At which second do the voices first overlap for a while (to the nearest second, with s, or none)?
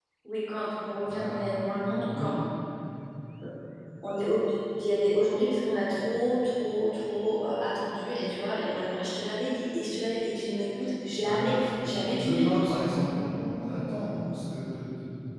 1 s